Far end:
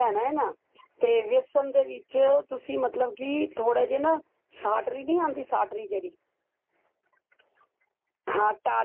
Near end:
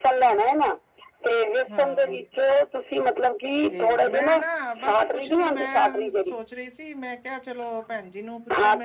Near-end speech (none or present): present